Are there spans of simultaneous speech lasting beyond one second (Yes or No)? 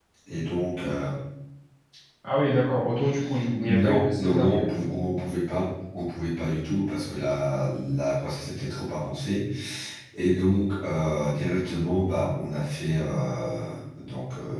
Yes